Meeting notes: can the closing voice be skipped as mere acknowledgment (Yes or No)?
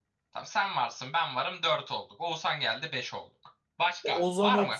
No